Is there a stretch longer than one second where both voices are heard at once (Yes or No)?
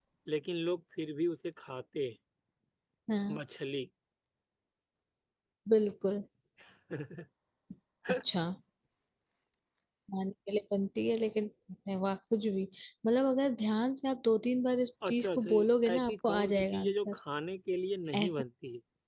Yes